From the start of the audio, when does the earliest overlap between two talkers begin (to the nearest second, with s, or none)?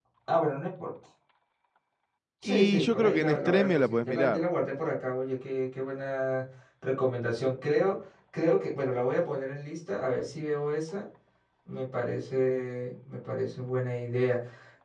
2 s